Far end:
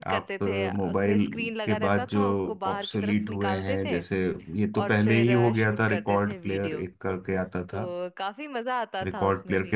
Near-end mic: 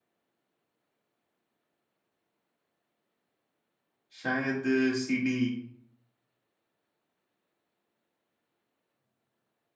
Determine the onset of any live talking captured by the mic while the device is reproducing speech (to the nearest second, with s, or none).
4 s